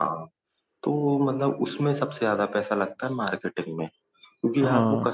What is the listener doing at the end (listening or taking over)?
listening